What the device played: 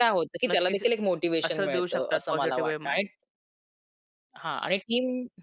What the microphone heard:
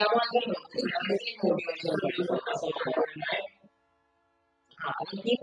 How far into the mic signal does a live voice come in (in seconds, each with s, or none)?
none